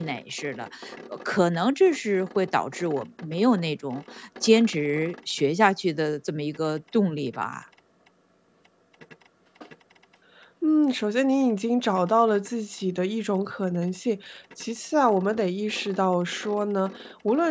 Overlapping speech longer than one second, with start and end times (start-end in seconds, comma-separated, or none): none